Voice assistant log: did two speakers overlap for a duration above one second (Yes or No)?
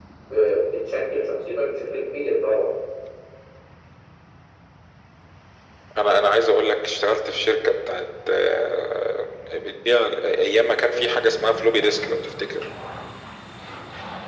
No